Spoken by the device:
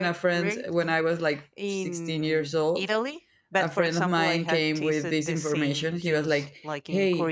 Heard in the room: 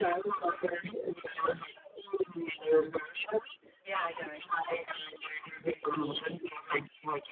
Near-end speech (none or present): present